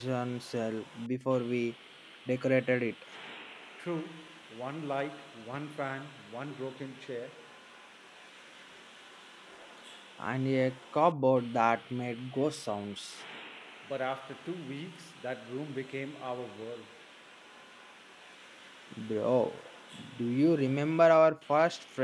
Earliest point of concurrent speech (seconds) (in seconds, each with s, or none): none